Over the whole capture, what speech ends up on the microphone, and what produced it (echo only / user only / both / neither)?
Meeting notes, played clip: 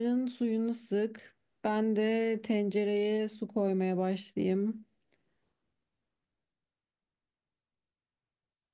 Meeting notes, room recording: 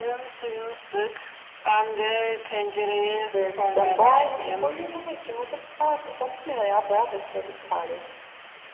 both